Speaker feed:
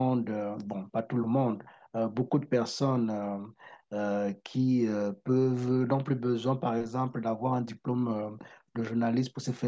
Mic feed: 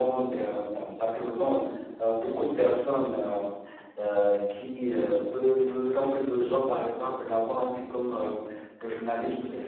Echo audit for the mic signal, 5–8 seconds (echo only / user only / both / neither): echo only